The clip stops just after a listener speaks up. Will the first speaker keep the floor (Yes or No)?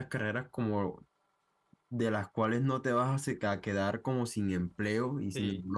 Yes